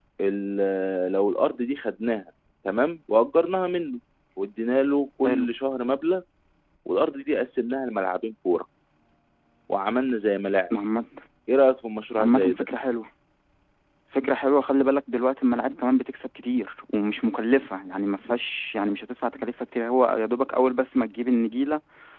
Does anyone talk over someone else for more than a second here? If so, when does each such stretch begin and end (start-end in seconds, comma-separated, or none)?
none